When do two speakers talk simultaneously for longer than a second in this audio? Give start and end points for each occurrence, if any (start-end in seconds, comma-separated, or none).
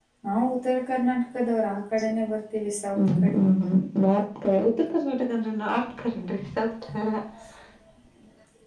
none